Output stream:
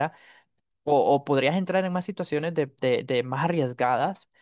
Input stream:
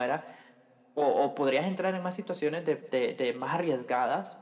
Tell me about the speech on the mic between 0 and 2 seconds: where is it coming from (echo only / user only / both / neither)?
echo only